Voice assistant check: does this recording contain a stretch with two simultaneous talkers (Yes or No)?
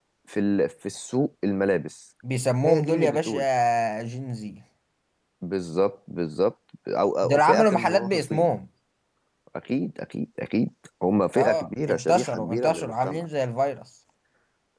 Yes